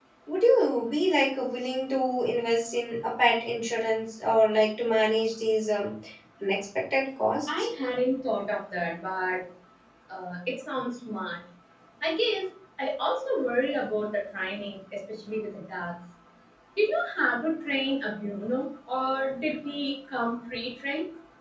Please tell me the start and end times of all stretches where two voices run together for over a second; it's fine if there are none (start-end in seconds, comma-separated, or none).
none